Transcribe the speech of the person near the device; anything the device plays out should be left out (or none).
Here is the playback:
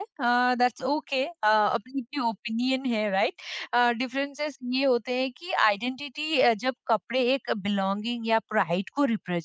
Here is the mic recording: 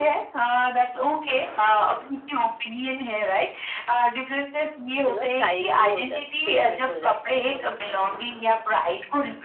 यू नो स्टाइल भी हो जाता स्टेटमेंट हो जाता है लोगों के लिए